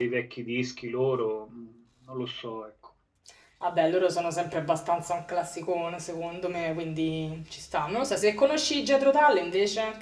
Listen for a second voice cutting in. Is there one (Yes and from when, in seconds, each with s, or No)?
No